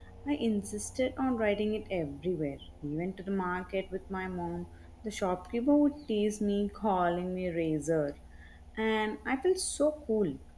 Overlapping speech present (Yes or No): No